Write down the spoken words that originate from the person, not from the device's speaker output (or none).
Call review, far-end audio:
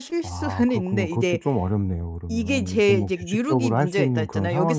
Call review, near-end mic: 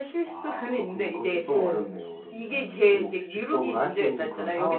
네.